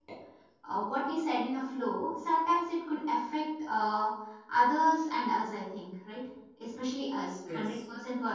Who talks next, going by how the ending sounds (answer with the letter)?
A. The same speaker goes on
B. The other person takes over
A